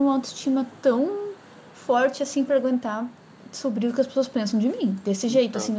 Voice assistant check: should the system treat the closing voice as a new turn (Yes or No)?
No